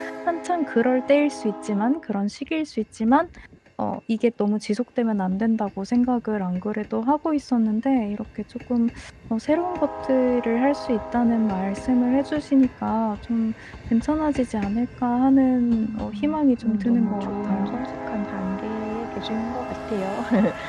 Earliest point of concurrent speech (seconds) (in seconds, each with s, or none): 15.6 s